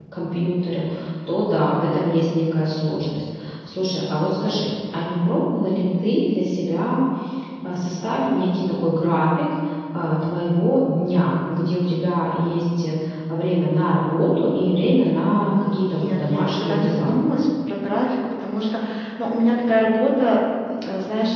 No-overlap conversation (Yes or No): No